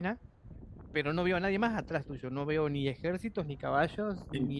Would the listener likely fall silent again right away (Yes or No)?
No